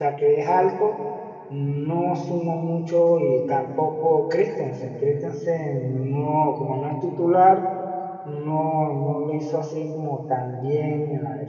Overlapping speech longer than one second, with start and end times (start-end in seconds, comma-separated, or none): none